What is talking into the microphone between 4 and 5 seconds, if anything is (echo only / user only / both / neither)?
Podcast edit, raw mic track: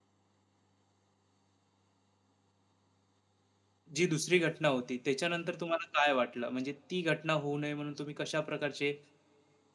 user only